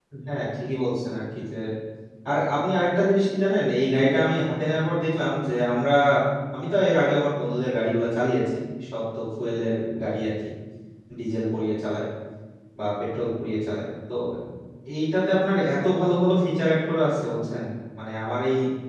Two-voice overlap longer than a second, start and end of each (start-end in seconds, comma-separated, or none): none